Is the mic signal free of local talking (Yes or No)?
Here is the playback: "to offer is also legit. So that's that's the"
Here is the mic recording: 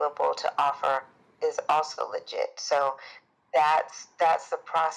Yes